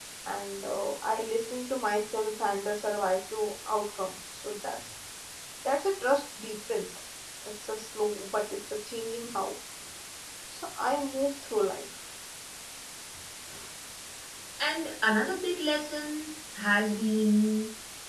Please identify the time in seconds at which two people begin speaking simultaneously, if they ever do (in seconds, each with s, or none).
none